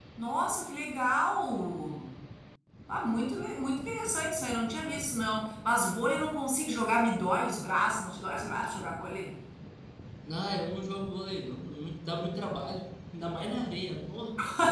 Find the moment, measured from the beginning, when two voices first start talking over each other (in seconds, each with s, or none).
none